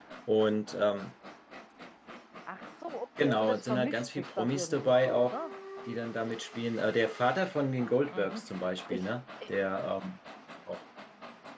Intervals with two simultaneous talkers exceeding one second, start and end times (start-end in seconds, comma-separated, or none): 3.2-5.3